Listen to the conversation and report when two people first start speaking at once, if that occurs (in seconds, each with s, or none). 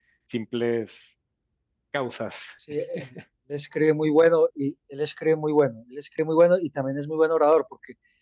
none